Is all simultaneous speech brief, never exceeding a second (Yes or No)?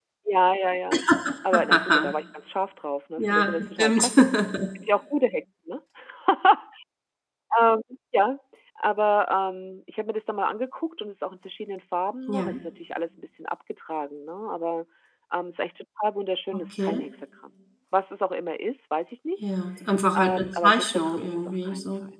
No